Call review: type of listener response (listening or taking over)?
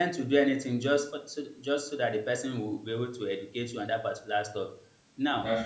listening